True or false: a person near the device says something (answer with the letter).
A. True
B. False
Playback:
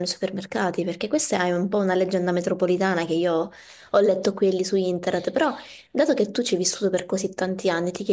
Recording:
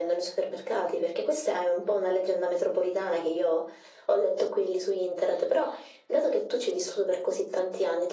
B